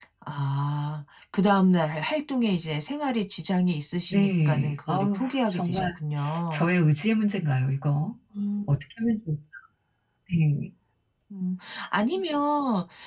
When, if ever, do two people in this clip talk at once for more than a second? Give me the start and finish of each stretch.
4.1-5.9

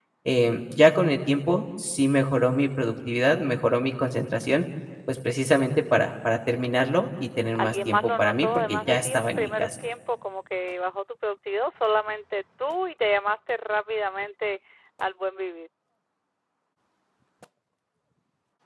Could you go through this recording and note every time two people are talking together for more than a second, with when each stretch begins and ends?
7.5-9.7

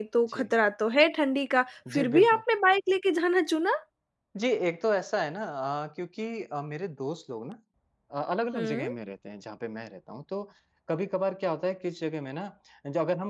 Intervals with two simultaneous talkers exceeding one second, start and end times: none

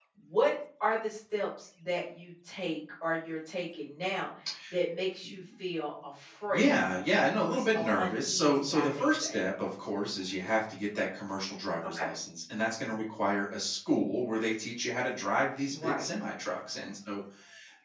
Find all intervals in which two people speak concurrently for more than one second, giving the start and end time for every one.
7.5-9.4

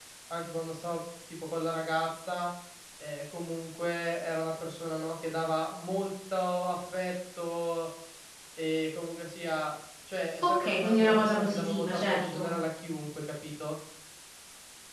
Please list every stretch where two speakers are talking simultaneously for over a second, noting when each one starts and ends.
10.4-12.5

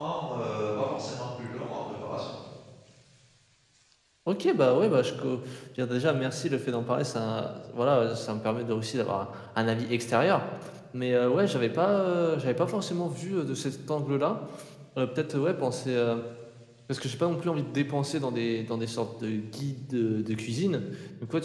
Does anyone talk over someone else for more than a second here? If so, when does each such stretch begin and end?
none

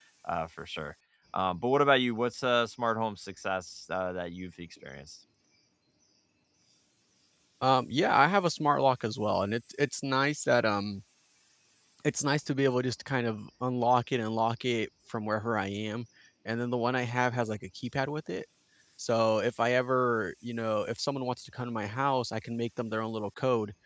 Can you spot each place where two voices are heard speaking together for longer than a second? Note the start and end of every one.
none

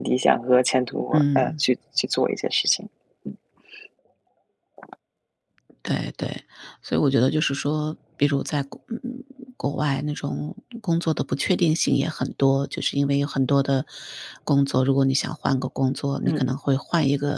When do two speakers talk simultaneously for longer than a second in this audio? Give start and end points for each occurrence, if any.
none

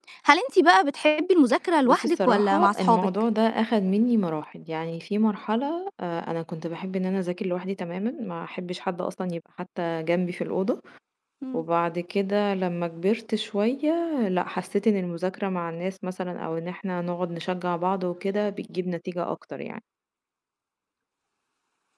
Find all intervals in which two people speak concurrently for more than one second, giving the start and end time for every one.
1.9-3.1

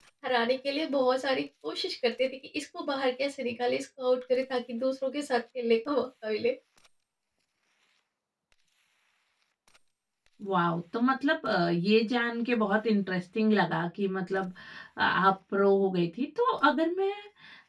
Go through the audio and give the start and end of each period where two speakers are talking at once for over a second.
none

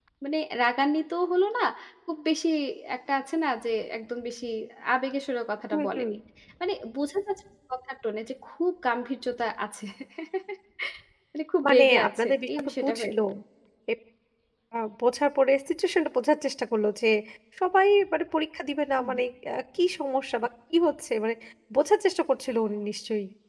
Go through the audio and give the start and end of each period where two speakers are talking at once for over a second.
11.7-12.9

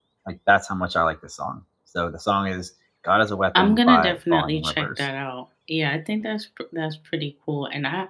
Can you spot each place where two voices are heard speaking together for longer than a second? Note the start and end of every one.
3.5-5.1

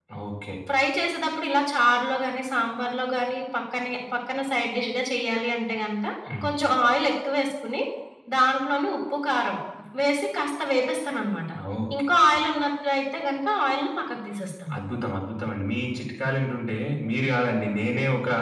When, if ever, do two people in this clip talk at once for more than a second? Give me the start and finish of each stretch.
none

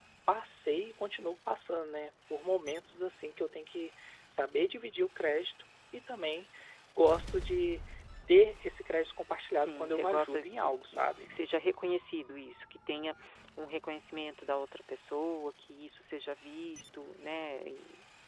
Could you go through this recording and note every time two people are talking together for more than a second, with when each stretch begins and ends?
9.6-11.3

